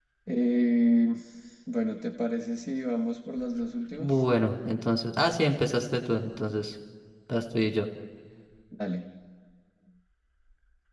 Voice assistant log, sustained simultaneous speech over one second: none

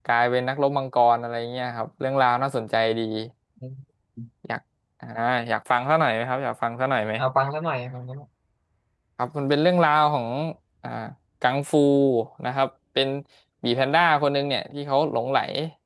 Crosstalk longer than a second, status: none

